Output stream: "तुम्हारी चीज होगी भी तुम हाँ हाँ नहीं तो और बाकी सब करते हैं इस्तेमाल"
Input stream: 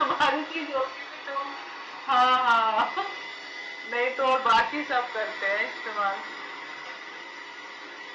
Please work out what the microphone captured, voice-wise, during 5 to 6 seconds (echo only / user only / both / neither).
echo only